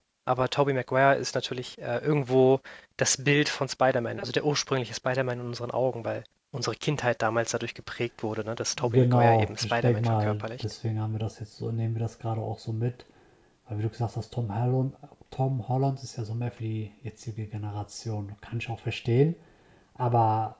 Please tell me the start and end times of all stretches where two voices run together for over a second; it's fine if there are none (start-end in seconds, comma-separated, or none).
8.9-10.6